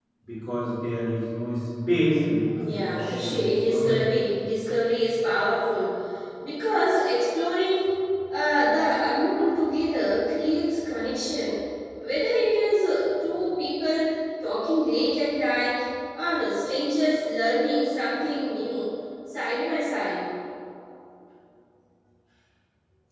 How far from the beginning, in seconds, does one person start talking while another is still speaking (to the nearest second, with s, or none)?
3 s